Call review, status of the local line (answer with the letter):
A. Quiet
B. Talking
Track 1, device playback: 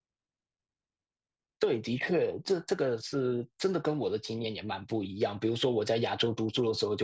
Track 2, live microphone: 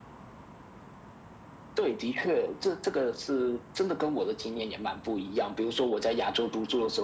A